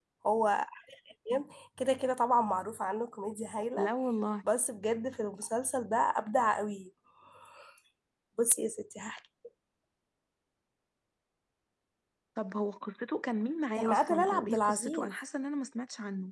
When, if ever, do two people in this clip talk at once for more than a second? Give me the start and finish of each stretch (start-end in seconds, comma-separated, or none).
13.8-15.2